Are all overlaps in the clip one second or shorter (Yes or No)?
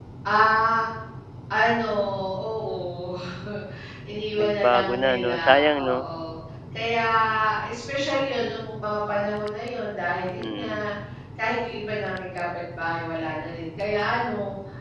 No